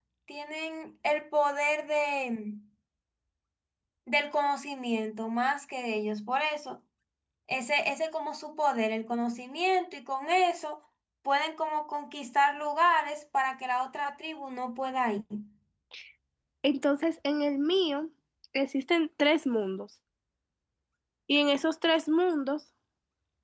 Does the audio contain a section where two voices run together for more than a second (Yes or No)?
No